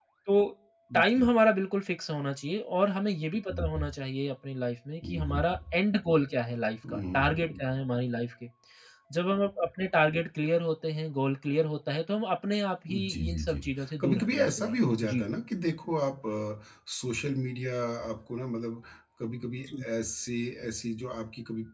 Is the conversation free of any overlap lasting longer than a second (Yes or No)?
No